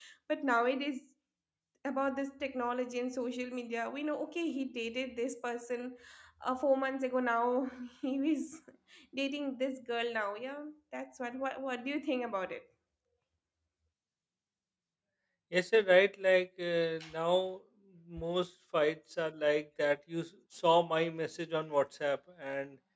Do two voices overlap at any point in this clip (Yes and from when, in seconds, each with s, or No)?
No